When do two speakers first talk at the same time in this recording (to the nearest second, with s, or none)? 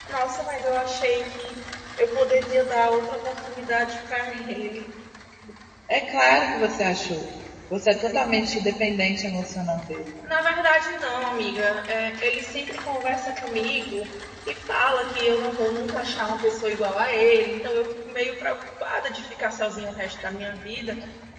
none